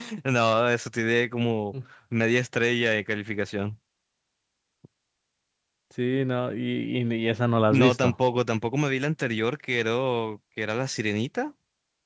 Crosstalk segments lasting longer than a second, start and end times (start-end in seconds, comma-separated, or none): none